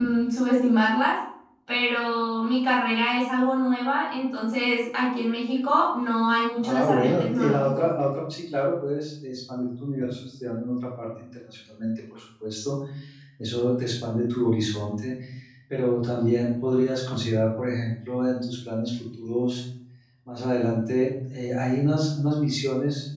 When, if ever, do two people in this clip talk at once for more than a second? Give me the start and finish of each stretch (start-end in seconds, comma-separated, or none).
6.6-7.8